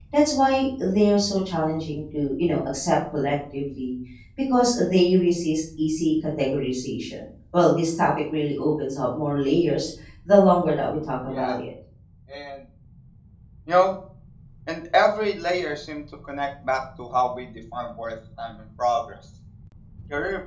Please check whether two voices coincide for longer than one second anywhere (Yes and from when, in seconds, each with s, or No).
No